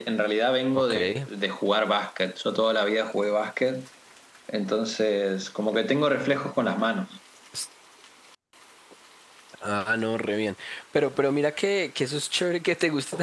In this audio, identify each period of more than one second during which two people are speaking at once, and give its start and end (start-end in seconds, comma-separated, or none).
none